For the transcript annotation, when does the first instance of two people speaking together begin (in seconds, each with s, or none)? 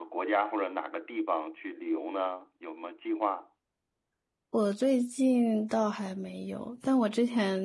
none